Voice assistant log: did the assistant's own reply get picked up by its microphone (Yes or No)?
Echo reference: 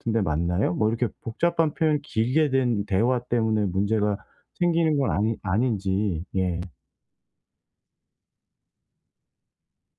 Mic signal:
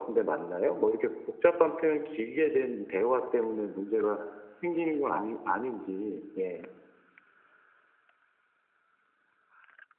Yes